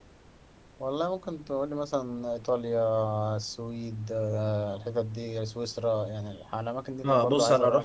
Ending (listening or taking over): taking over